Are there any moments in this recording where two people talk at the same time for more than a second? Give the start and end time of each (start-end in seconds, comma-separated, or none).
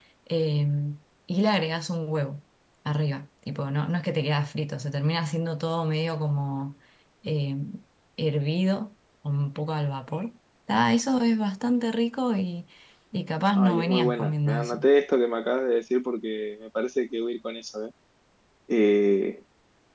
13.5-14.8